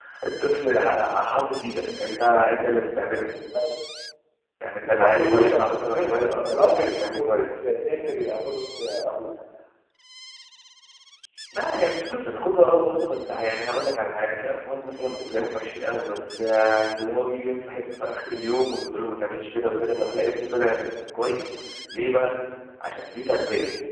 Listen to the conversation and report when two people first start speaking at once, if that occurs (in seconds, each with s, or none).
4.8 s